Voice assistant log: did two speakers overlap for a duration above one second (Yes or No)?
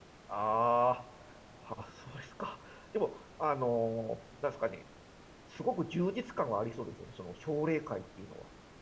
No